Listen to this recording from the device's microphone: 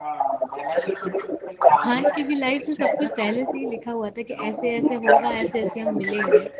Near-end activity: present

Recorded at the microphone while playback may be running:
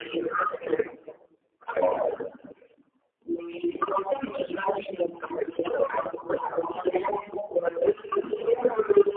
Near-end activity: none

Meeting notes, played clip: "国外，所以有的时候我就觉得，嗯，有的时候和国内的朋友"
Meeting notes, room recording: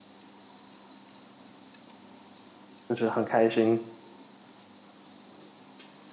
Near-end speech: present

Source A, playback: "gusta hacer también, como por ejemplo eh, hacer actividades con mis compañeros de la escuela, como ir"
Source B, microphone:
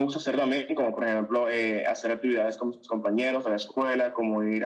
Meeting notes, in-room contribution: none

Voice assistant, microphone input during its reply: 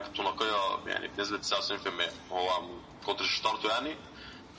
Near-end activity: none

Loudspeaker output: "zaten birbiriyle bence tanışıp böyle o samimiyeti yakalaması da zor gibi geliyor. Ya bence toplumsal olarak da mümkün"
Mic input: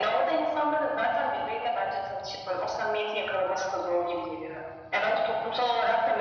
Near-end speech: none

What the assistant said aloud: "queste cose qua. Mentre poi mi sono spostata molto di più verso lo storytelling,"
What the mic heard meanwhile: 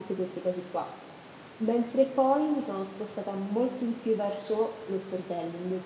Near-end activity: none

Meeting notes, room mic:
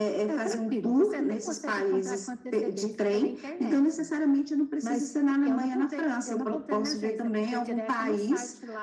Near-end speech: none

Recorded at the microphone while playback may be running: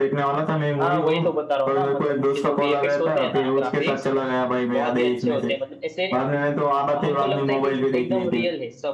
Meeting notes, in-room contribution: present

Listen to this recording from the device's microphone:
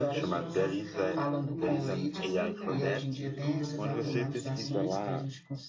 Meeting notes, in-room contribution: present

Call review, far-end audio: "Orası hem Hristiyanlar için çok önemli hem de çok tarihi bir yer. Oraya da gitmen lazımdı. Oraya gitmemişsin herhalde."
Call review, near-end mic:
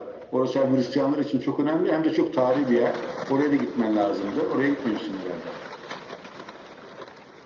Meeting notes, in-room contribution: none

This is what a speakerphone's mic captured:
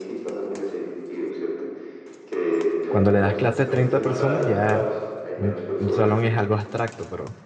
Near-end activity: present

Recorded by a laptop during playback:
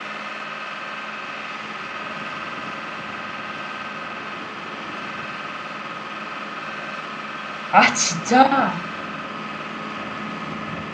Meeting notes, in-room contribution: present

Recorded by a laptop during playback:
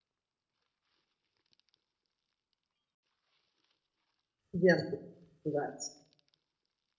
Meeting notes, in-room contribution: present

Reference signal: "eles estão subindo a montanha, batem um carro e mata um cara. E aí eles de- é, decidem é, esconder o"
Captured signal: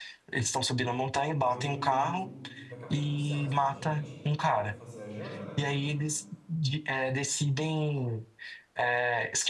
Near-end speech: present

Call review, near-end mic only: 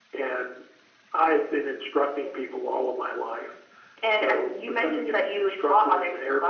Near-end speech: none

